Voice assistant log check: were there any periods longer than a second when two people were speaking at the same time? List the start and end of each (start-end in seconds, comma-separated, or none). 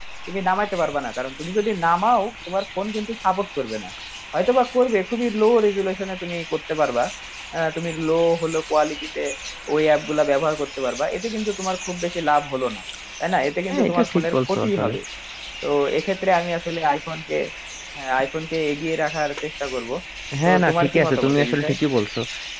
13.7-14.9, 20.4-21.7